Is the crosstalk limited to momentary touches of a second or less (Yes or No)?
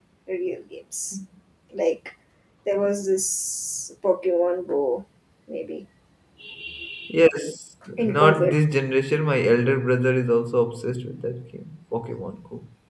Yes